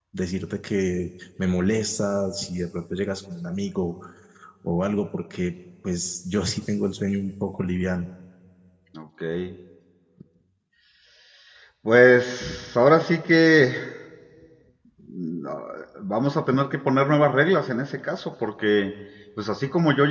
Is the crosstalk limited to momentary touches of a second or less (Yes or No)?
Yes